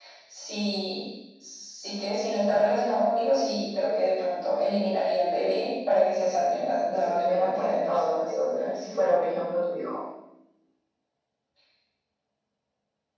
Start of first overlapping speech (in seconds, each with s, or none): 6.9 s